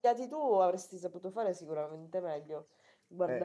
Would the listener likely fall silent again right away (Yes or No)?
No